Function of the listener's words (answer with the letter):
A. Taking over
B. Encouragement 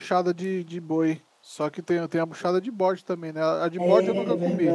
A